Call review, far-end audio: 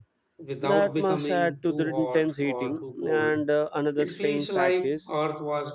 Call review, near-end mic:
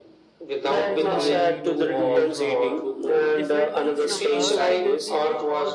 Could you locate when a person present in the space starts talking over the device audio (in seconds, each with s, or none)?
0.7 s